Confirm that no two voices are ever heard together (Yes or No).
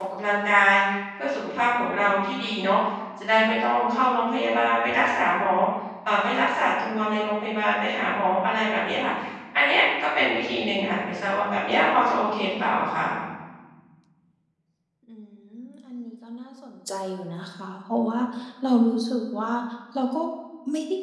Yes